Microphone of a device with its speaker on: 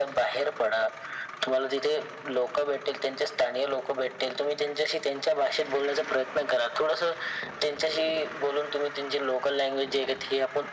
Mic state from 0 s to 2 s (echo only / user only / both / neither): echo only